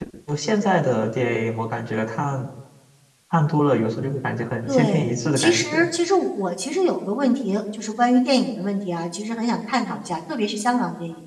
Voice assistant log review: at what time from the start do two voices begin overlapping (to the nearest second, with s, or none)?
5 s